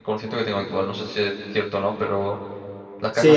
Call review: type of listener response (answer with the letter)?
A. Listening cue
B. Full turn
B